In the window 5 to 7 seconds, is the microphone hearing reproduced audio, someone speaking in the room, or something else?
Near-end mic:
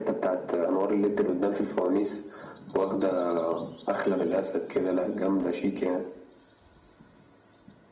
echo only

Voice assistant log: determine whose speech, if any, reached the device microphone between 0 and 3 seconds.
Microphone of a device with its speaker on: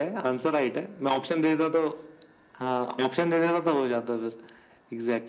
echo only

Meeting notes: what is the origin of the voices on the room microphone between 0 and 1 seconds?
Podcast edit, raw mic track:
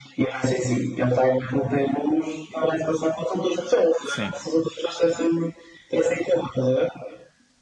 echo only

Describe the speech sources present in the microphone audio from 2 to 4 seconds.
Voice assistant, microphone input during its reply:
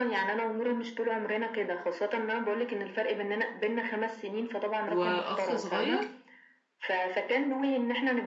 echo only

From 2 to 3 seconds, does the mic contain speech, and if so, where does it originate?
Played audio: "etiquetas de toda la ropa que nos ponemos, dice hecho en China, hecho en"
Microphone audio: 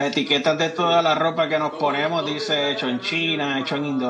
both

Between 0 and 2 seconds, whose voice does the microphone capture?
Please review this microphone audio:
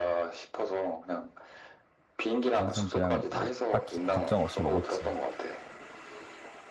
echo only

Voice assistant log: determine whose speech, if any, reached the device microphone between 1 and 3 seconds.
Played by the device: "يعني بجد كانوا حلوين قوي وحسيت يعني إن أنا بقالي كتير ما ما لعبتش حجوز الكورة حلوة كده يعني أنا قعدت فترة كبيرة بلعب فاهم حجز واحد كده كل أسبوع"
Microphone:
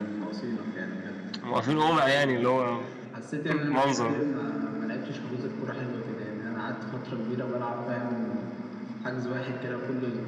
both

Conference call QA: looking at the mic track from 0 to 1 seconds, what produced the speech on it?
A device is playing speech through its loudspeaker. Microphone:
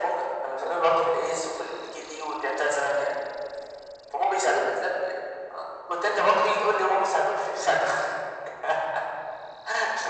echo only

